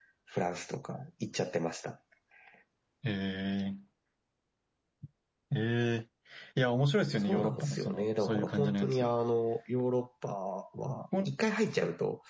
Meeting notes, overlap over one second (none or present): present